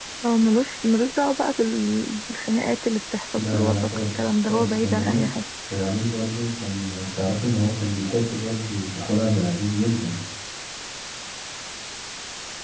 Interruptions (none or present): present